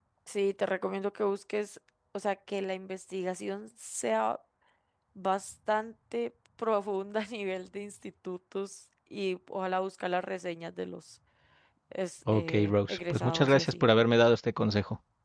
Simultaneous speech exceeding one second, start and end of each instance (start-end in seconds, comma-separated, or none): 12.3-13.8